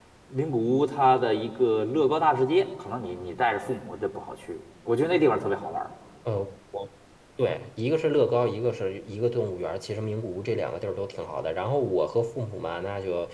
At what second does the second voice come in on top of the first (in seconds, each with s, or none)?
none